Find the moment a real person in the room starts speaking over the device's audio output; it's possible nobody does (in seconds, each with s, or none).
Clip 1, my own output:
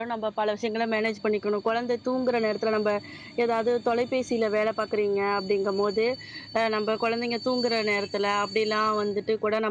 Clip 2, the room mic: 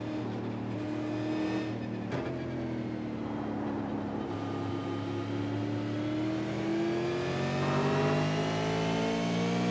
none